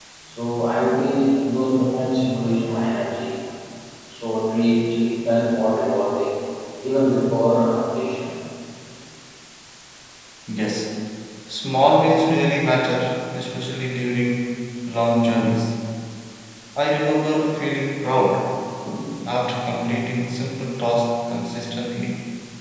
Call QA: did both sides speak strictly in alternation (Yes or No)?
Yes